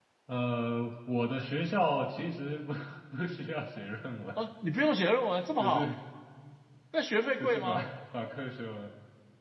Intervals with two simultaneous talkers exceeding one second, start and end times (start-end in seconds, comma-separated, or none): none